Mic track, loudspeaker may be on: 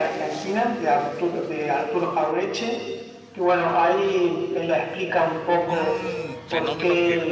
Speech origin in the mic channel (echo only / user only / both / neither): both